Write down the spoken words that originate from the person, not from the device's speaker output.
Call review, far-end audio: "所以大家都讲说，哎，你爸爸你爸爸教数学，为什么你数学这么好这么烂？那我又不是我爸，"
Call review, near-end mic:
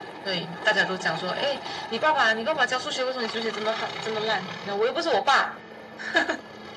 none

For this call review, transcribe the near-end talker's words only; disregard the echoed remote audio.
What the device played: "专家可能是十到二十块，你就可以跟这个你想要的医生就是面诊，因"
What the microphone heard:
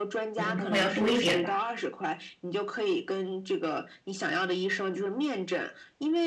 嗯部分要多一点吧。

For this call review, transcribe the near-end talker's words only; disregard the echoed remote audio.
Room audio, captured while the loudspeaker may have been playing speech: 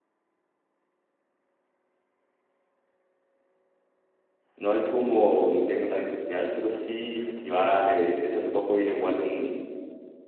no hay como un techno tan industrial, pero sí festivales. De hecho, hace poco vino igual un,

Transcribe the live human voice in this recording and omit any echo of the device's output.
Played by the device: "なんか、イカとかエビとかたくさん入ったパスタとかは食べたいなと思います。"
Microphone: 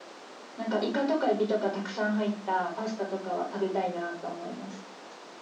none

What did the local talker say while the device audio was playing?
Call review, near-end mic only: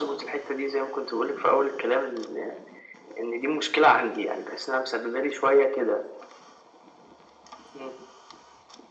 none

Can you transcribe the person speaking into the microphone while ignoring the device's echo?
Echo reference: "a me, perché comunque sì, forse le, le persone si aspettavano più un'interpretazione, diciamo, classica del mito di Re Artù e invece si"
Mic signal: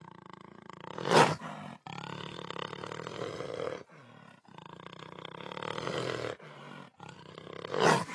none

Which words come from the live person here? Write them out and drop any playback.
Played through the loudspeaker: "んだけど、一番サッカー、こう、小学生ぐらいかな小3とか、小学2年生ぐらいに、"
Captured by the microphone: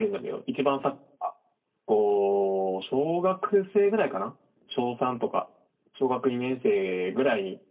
none

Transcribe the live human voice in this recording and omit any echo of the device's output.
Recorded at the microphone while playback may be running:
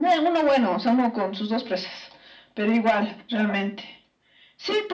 none

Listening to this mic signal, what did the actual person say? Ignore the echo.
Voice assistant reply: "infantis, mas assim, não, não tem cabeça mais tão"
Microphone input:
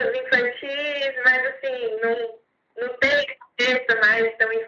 none

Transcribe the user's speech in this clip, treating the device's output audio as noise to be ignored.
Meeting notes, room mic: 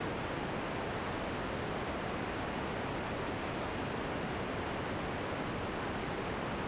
none

